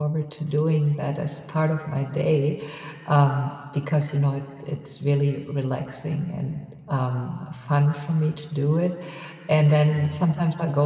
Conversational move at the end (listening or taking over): listening